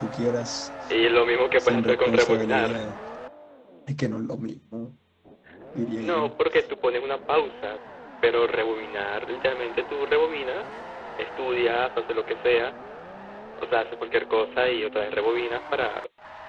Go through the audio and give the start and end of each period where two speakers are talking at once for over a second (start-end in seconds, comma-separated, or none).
1.6-2.9